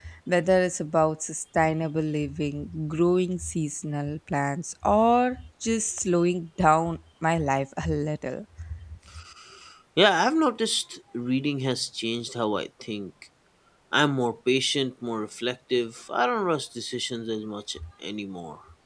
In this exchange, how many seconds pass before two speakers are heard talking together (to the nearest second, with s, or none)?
none